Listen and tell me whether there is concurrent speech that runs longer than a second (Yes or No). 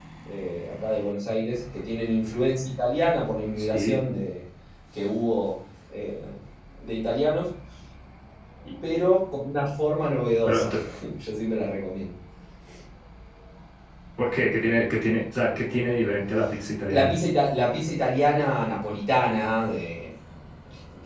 No